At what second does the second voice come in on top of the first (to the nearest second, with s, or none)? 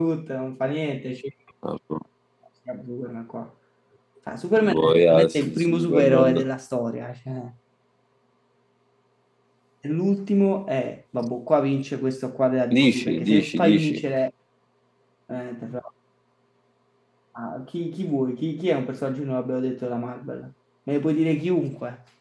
5 s